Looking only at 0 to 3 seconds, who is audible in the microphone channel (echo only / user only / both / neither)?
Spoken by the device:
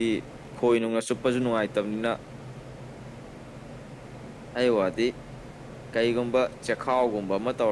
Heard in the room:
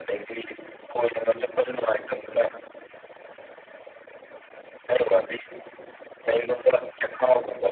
echo only